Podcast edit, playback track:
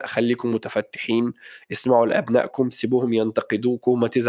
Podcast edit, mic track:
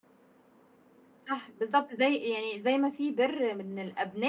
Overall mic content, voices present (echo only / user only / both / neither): user only